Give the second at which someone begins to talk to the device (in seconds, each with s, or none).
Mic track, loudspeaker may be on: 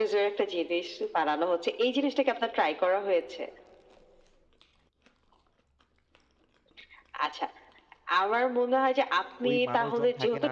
9.5 s